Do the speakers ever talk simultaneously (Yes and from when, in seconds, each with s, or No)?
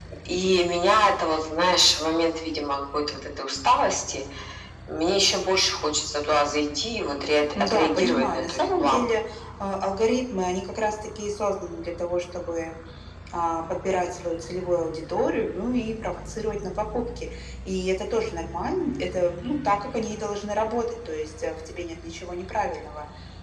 Yes, from 7.6 s